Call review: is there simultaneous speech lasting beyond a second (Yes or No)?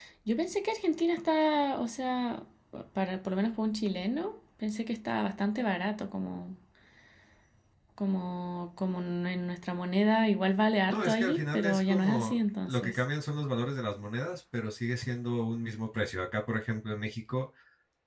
Yes